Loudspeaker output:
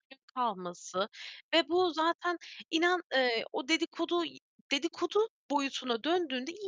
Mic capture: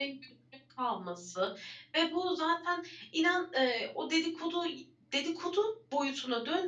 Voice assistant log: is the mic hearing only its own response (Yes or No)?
Yes